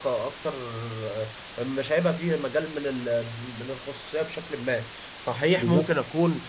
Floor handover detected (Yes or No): No